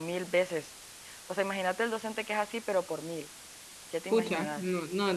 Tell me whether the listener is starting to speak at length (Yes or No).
Yes